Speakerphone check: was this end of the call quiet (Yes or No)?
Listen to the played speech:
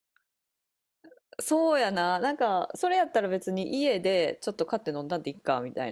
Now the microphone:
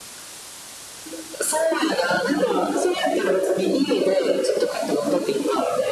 Yes